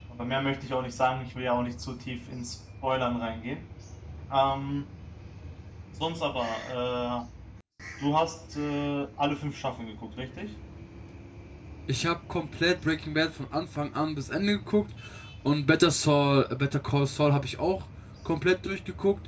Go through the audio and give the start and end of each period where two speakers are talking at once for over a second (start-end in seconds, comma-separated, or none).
none